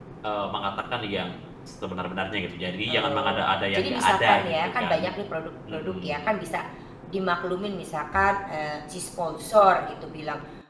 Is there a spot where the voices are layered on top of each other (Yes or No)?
Yes